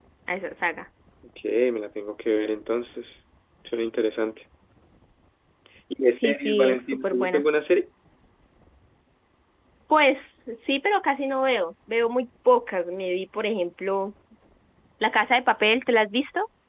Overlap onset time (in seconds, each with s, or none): 6.2 s